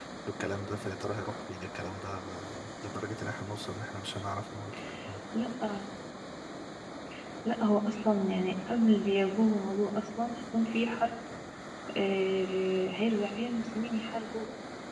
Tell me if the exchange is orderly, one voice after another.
Yes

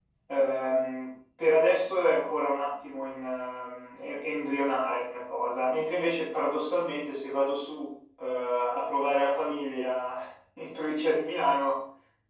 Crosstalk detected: No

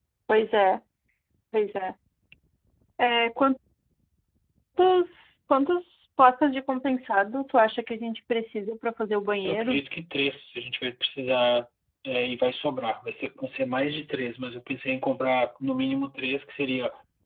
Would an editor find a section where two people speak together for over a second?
No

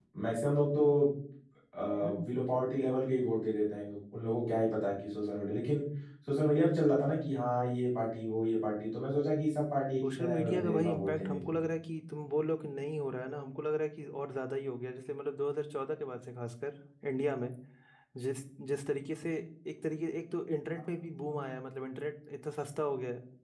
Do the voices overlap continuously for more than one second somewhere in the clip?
Yes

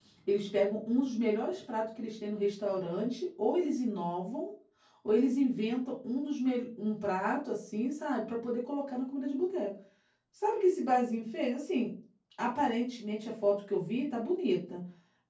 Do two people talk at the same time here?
No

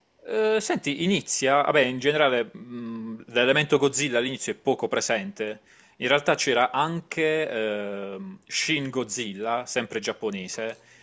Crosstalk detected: No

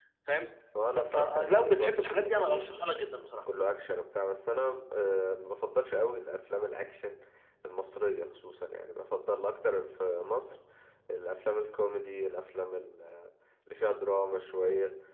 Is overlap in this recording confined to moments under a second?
No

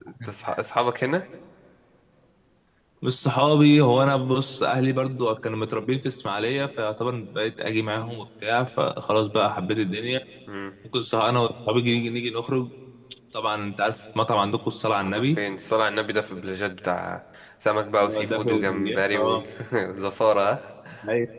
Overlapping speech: Yes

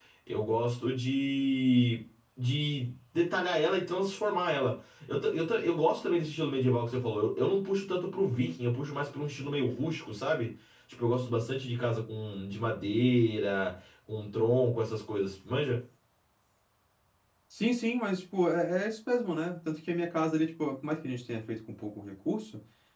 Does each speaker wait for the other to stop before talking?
Yes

